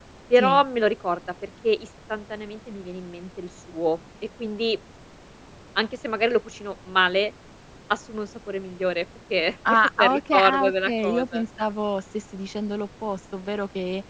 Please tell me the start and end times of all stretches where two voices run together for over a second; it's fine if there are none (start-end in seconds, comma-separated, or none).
9.7-11.4